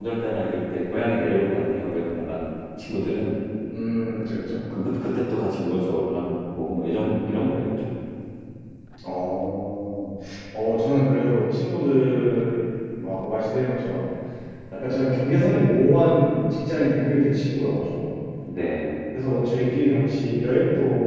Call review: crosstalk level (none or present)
none